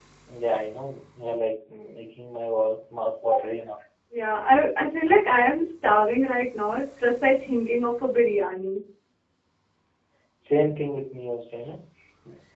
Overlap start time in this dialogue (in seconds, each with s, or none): none